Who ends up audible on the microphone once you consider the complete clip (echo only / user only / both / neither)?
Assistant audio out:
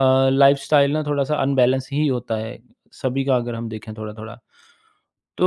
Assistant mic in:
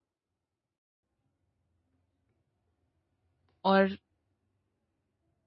user only